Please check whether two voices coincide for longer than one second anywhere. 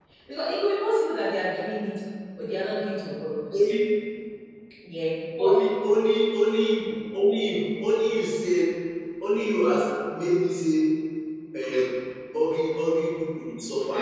No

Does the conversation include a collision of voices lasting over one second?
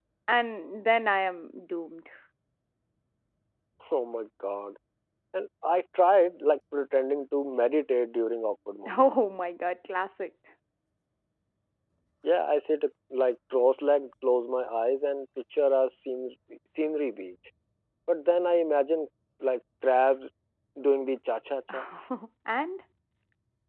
No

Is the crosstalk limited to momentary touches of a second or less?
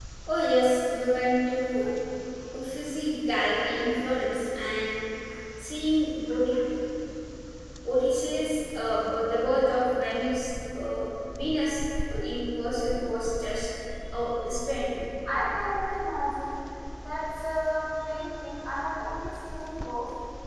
Yes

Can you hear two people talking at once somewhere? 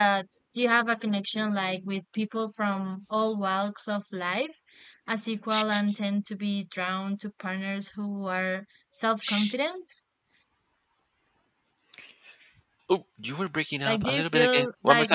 Yes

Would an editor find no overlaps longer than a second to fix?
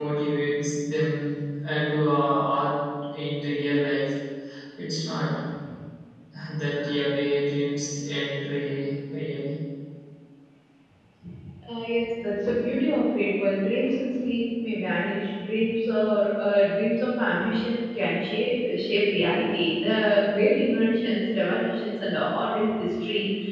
Yes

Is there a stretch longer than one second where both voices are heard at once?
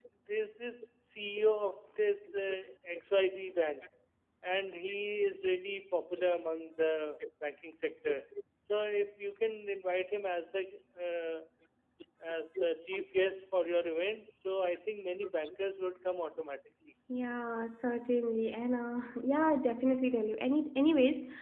No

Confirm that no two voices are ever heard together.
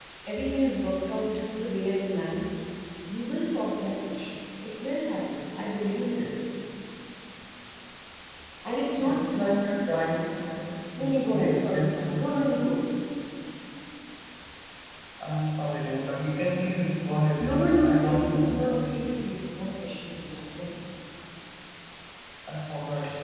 No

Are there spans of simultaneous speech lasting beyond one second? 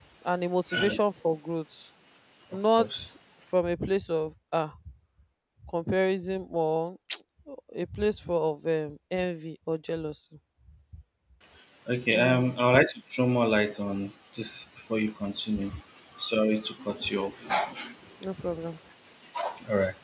No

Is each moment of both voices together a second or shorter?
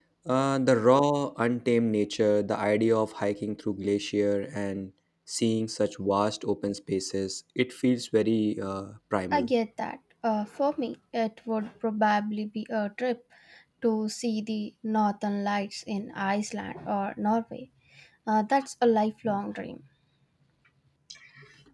Yes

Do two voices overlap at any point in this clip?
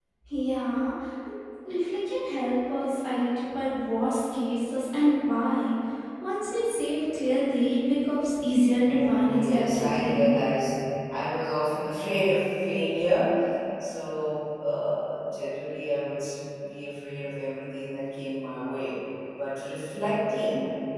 Yes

